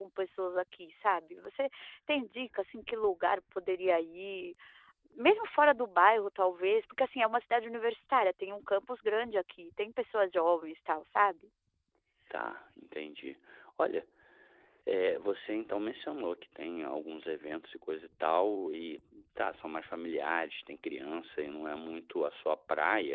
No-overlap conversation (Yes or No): Yes